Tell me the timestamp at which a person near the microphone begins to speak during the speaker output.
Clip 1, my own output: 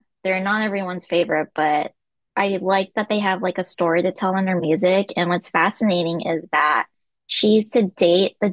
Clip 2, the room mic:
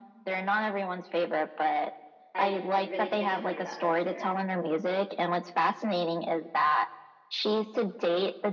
2.3 s

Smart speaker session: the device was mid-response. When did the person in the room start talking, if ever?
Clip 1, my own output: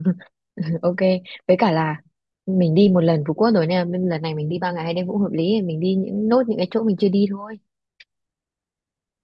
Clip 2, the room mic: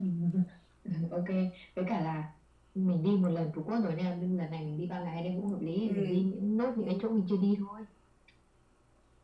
5.8 s

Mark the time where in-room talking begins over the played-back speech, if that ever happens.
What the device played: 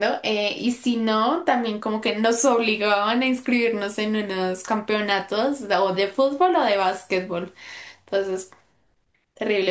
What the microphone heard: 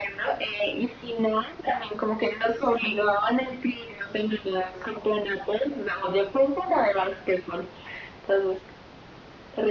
none

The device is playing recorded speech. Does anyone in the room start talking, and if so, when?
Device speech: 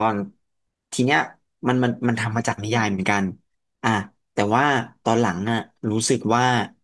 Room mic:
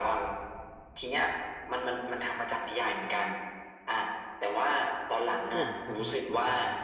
5.5 s

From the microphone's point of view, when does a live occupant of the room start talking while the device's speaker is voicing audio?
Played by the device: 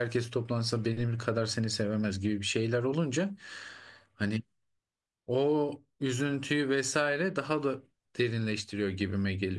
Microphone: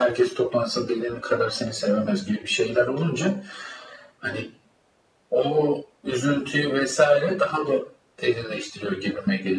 none

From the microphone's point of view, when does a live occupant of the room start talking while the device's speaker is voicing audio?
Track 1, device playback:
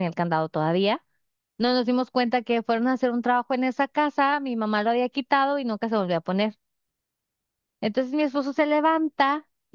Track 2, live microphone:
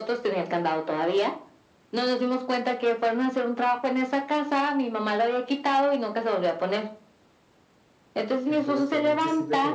8.5 s

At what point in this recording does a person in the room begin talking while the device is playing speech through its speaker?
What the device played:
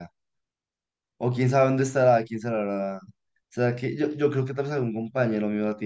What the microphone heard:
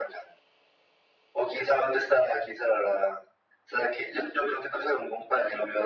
none

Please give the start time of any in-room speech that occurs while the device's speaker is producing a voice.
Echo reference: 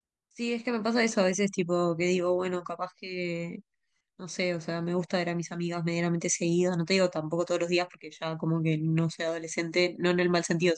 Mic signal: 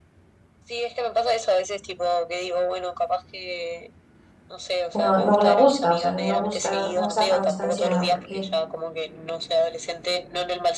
4.9 s

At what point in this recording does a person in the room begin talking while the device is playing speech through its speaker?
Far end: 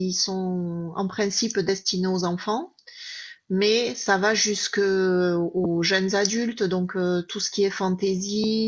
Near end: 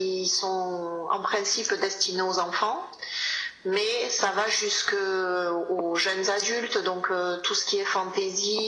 none

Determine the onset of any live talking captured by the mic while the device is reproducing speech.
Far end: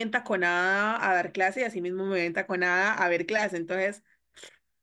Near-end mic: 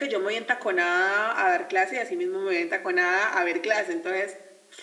none

